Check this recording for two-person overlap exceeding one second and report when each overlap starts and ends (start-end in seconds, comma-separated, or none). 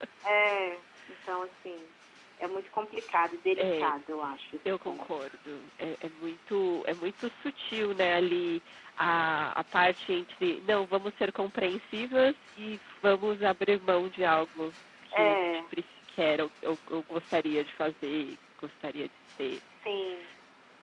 none